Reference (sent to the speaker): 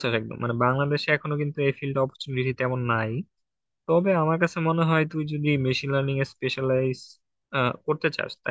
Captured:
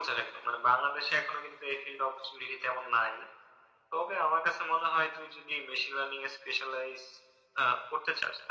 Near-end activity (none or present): none